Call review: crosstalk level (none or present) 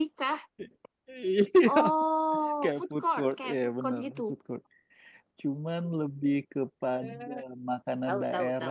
present